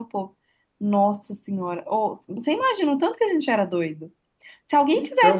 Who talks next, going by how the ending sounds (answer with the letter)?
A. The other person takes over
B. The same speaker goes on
B